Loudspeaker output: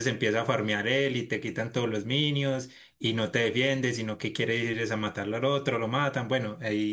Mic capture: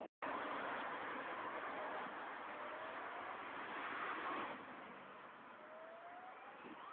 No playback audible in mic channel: Yes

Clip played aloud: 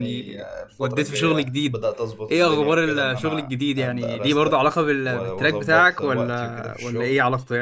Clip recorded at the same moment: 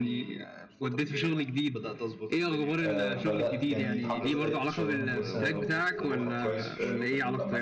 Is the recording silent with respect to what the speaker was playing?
No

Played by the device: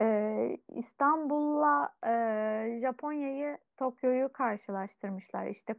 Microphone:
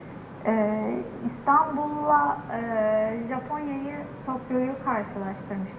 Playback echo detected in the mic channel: Yes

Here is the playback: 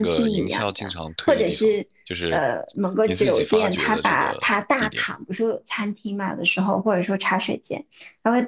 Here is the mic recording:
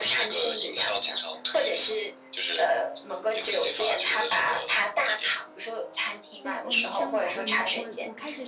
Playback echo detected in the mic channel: Yes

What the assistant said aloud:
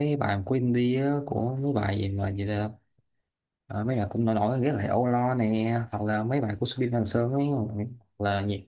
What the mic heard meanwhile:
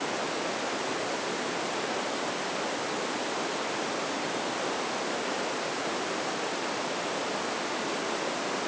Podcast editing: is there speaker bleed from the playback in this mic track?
No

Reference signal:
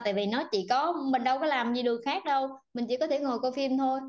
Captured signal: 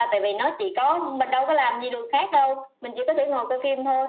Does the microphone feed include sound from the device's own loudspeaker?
Yes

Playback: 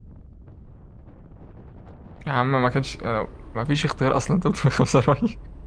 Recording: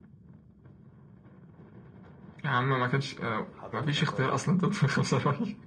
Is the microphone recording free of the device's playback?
No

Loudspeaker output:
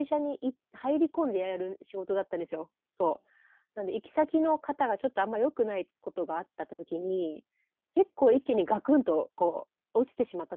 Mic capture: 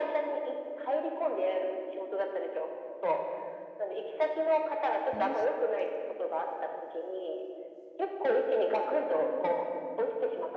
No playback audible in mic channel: No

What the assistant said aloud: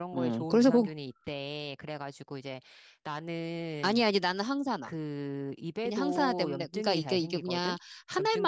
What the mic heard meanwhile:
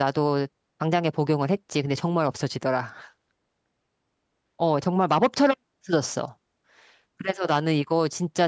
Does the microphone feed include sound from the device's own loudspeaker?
No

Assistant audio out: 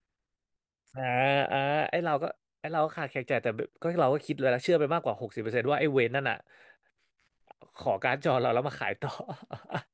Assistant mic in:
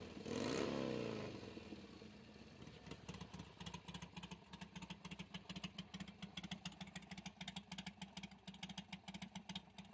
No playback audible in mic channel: Yes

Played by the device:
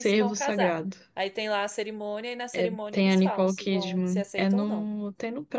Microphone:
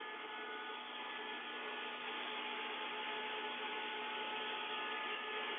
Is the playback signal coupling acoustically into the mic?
No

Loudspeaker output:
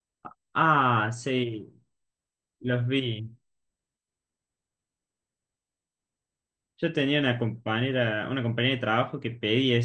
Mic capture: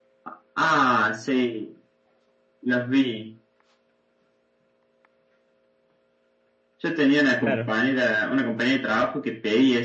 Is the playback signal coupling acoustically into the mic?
Yes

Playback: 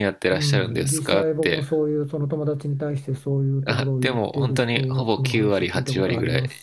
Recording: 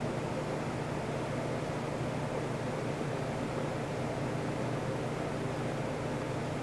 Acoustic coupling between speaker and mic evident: No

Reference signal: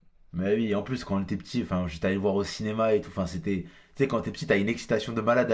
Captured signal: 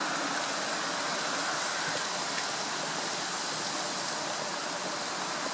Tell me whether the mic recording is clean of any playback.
Yes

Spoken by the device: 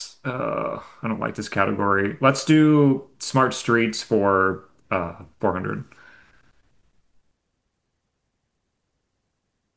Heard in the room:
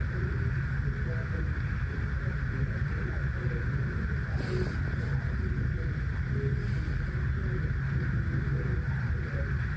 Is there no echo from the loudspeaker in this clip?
Yes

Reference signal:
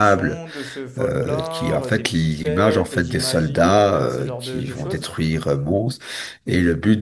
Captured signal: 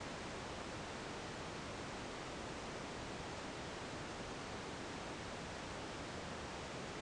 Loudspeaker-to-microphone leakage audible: No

